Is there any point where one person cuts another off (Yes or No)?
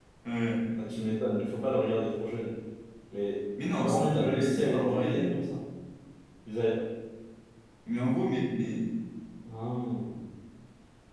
Yes